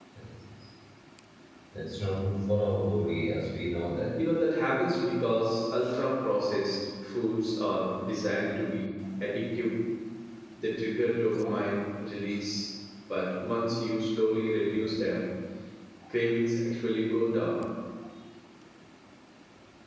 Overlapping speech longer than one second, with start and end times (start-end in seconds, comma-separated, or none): none